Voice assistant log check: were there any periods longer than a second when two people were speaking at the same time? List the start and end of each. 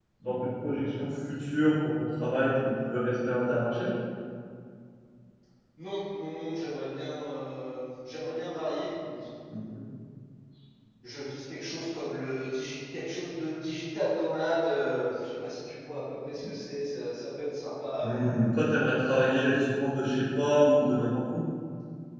none

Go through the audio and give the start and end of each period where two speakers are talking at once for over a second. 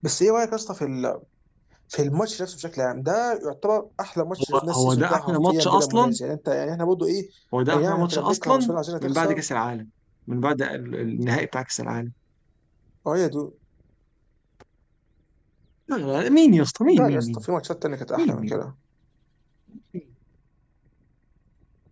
4.5-6.2, 7.7-9.4

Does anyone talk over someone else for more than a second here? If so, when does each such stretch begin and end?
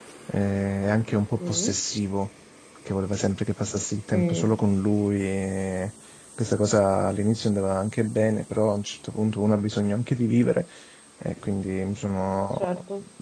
none

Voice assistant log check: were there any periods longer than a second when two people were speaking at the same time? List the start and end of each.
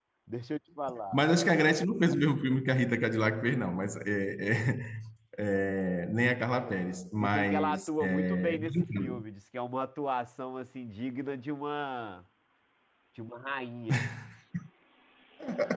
7.2-9.2

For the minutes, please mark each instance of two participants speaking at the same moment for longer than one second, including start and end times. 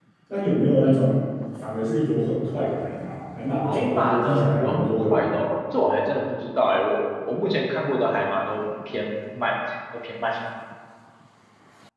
3.6-5.3

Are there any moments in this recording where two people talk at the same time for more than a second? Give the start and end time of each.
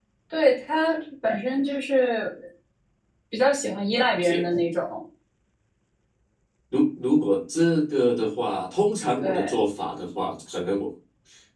none

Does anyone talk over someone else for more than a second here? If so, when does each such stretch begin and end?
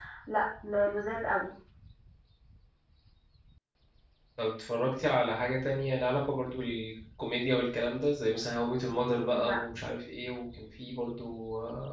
none

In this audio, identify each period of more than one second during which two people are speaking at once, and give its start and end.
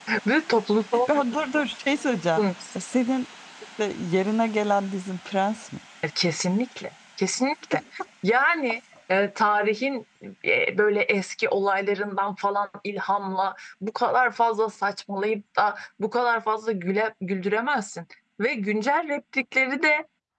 none

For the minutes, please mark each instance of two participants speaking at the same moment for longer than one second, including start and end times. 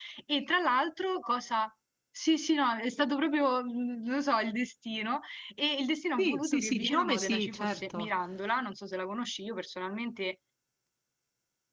6.2-8.1

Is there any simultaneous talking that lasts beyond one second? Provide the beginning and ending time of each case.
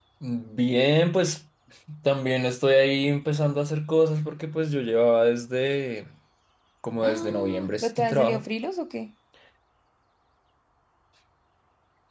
7.0-8.4

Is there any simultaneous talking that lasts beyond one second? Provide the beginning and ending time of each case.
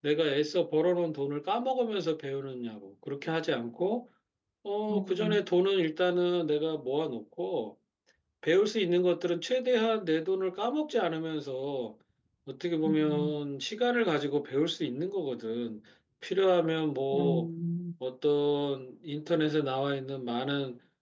none

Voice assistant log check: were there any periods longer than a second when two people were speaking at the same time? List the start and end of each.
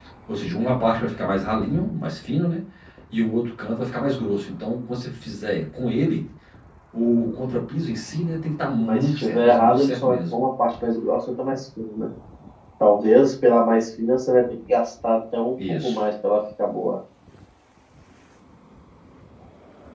8.8-10.4

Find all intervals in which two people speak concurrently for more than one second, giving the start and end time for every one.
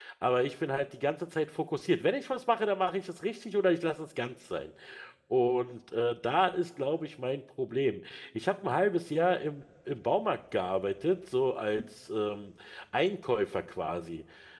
none

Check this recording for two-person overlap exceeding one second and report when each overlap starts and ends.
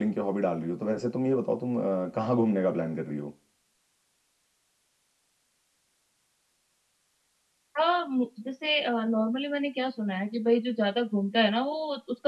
none

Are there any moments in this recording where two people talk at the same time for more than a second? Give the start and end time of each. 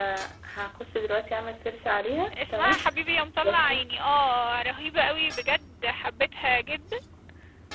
none

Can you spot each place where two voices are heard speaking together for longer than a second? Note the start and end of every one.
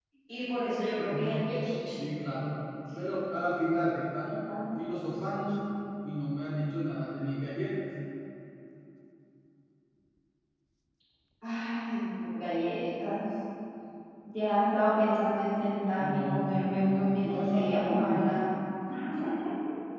16.1-18.3

